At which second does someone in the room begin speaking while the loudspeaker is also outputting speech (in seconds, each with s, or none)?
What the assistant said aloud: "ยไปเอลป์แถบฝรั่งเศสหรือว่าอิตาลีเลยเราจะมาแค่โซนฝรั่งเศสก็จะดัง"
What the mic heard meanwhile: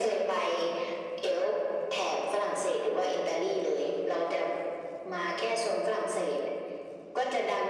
none